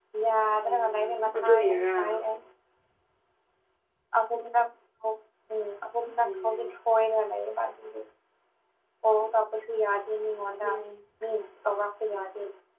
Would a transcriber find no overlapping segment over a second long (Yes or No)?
No